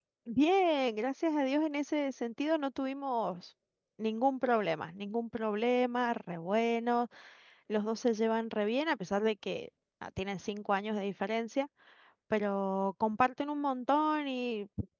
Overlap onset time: none

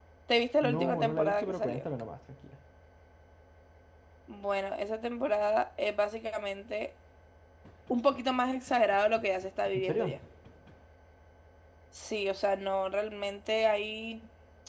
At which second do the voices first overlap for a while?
1 s

